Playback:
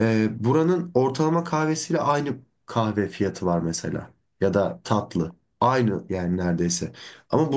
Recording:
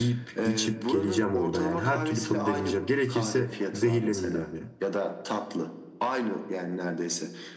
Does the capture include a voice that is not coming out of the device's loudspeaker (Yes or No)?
Yes